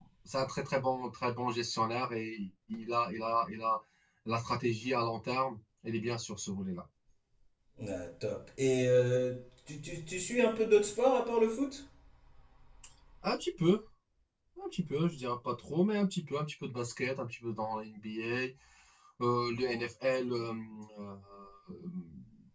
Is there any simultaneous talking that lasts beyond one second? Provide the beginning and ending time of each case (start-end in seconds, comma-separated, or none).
none